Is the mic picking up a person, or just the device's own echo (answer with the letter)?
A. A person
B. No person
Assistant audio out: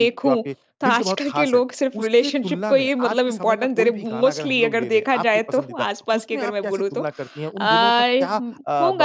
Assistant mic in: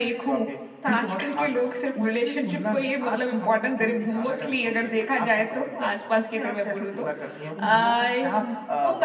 B